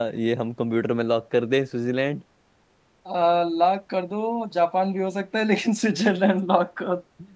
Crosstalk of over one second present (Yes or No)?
No